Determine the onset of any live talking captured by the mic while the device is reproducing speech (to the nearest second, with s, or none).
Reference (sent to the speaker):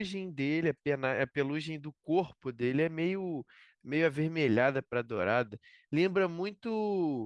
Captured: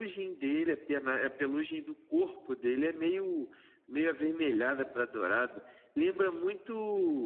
none